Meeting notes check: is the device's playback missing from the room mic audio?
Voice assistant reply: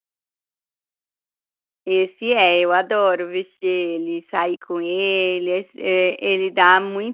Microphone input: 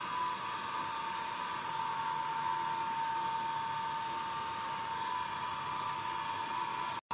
Yes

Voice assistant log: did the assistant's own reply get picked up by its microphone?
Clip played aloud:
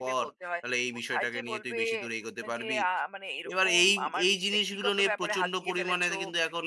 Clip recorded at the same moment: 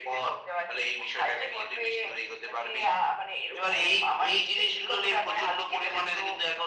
Yes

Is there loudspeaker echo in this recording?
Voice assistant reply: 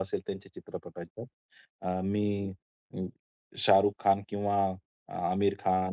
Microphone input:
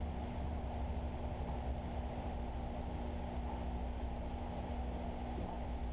No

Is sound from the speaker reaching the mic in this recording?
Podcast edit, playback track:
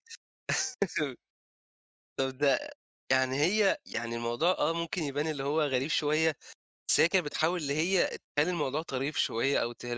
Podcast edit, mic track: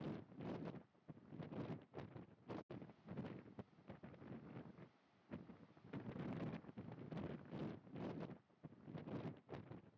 No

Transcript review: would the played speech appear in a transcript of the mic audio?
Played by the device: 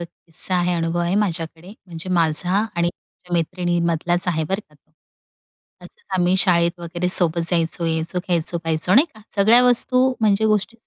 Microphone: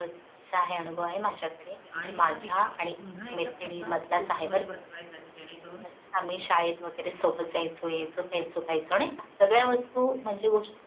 Yes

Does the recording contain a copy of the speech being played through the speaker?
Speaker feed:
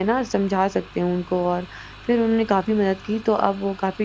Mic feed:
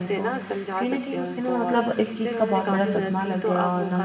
Yes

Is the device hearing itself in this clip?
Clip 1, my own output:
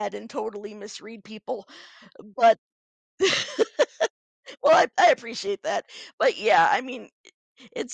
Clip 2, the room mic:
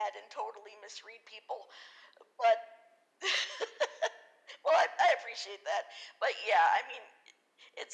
Yes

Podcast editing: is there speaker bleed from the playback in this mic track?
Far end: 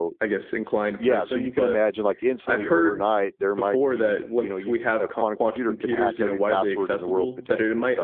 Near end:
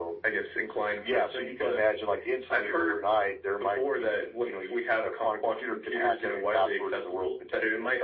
Yes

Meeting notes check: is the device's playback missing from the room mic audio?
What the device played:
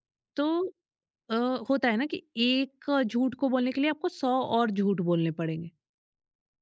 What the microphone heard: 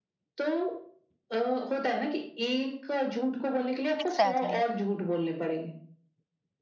No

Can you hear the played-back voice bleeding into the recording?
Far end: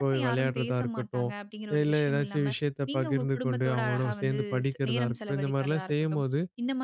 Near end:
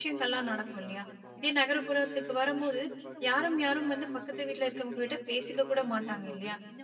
Yes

